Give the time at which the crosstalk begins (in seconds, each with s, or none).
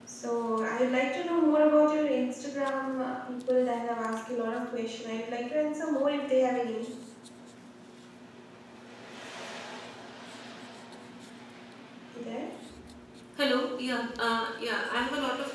none